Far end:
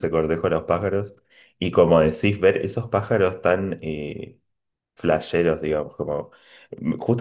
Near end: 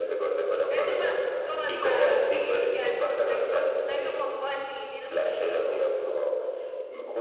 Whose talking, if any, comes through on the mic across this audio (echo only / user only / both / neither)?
both